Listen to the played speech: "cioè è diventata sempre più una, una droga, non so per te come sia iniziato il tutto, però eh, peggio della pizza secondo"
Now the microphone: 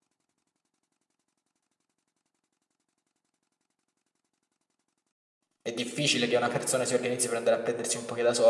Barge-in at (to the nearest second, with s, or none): 6 s